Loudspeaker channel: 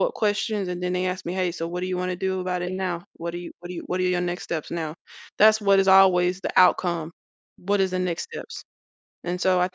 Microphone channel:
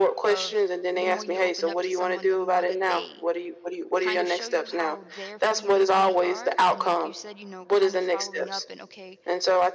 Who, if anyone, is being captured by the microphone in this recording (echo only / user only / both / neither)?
both